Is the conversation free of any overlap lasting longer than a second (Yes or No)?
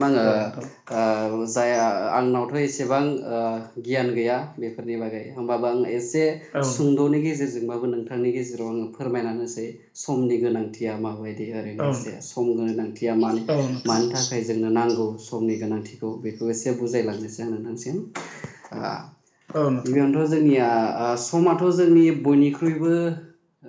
Yes